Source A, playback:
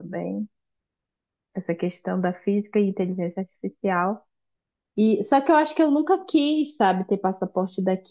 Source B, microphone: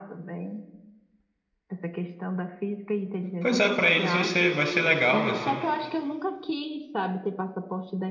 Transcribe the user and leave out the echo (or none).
Pois é, pra eles vai ser, vai ser legal, assim.